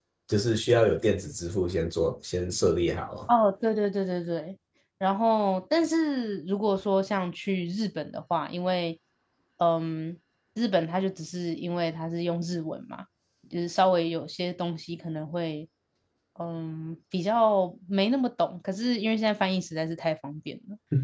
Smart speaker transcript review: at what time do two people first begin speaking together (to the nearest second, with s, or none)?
none